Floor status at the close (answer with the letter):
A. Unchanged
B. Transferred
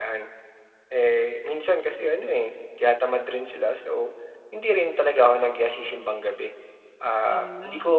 A